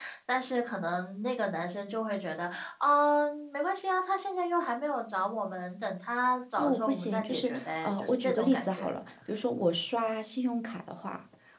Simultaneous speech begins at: 6.6 s

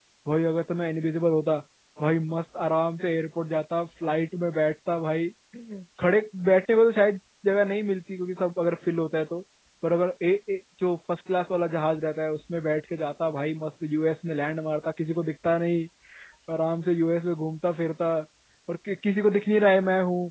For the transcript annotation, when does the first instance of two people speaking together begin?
none

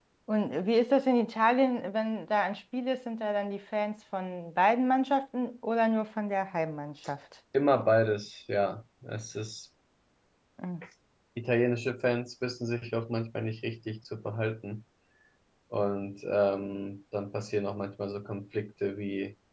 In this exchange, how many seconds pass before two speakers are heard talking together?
none

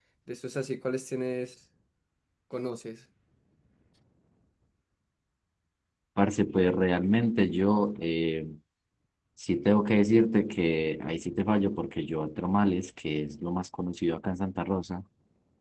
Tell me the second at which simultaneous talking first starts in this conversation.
none

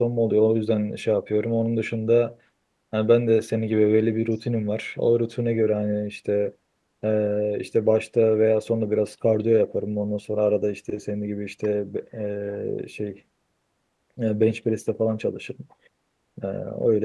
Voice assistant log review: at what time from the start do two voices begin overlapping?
none

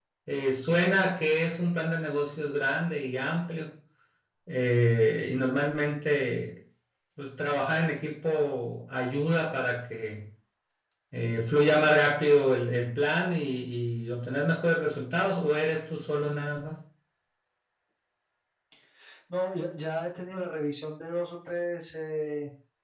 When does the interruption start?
none

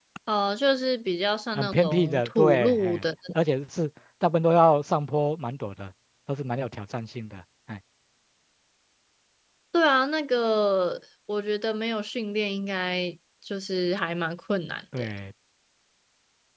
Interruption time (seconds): 1.6 s

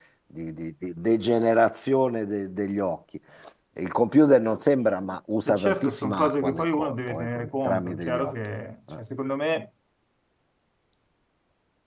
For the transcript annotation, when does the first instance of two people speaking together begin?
5.5 s

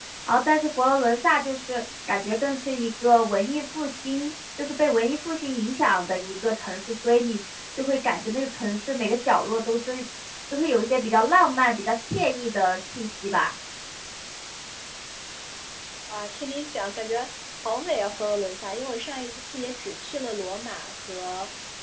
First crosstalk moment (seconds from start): none

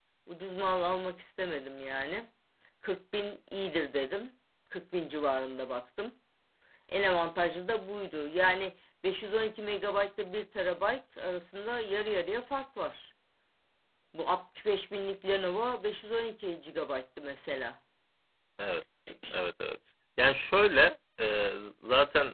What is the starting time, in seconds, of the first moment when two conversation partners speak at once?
none

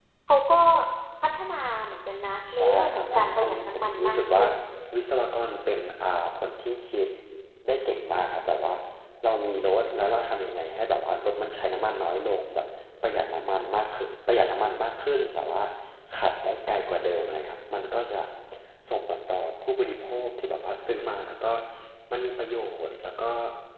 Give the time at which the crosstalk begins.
2.5 s

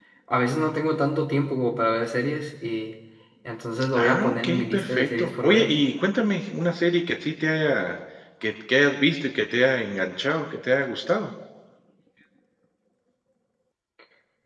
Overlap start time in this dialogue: 4.0 s

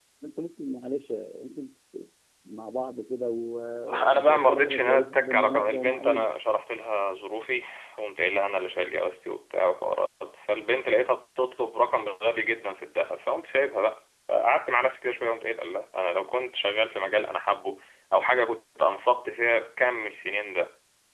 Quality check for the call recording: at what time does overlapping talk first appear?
3.9 s

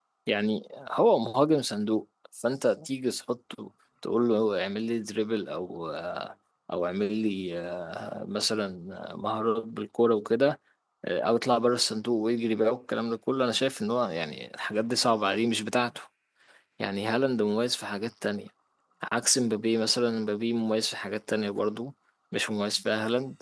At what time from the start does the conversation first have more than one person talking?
none

